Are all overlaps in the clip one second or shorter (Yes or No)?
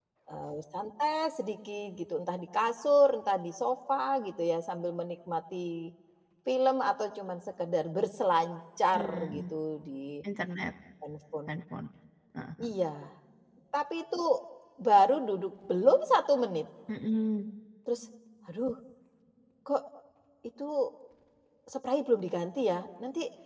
Yes